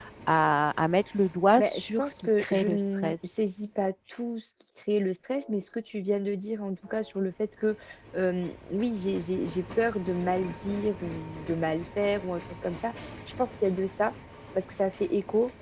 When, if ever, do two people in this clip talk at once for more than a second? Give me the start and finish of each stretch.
1.6-3.2

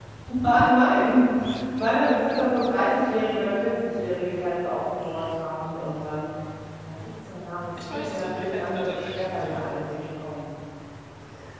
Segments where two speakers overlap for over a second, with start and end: 7.9-9.7

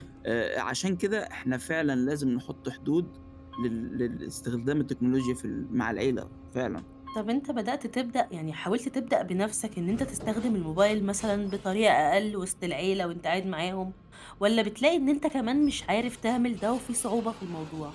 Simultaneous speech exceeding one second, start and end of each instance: none

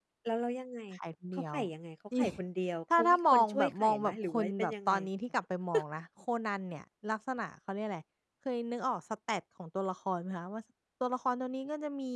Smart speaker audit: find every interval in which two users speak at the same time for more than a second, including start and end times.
3.0-4.9

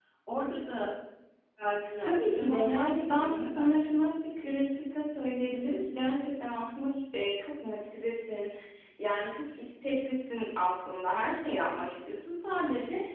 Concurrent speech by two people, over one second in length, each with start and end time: 2.0-4.0

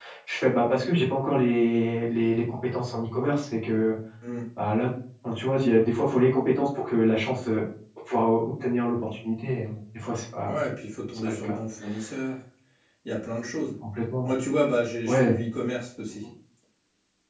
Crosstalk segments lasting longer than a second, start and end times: none

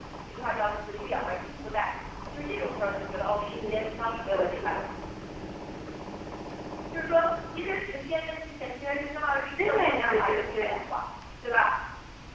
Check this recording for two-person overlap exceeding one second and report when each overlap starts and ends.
3.5-4.8, 9.6-10.8

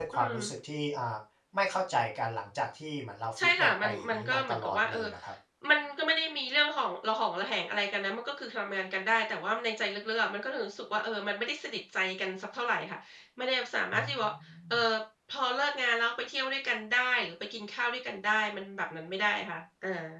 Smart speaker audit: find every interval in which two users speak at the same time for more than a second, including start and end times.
3.4-5.0

